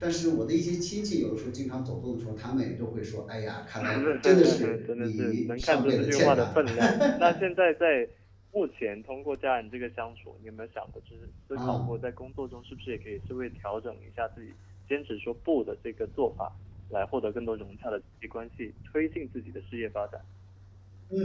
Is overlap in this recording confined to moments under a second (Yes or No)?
No